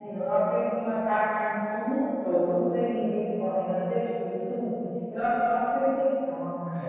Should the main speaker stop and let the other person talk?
Yes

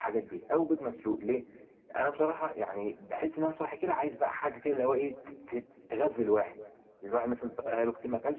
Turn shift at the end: No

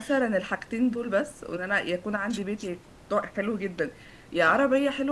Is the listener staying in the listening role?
Yes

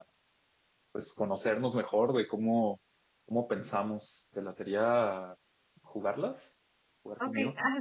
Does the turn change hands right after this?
Yes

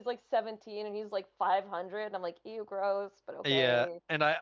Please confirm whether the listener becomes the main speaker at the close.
Yes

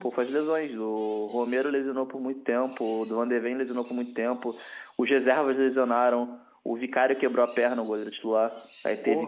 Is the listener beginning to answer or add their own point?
No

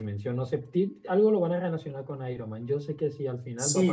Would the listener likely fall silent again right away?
No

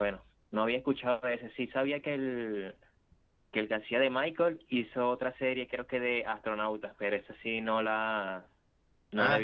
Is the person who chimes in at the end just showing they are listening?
Yes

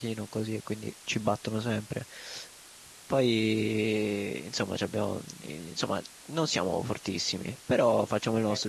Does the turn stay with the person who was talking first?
No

